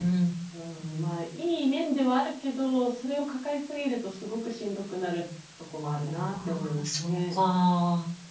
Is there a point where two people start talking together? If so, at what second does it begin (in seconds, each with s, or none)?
6.1 s